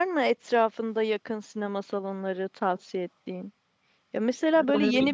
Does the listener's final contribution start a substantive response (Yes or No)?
No